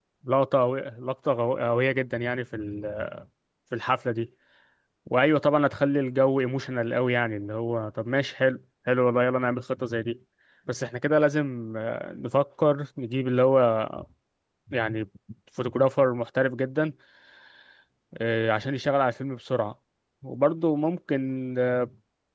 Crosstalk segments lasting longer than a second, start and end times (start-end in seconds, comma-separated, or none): none